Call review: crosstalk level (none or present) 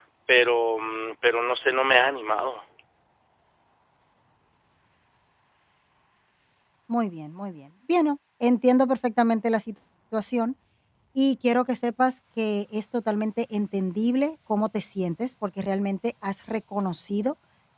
none